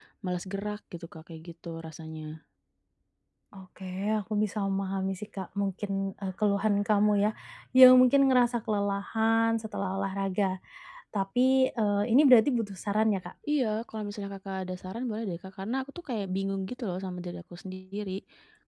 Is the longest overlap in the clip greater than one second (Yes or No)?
No